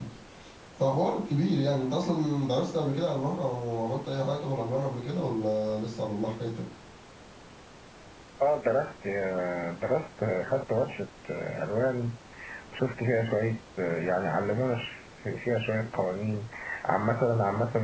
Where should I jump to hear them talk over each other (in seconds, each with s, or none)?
none